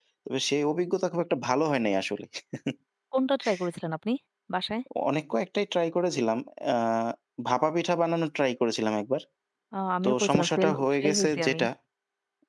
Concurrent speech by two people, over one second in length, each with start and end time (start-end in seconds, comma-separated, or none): 10.0-11.6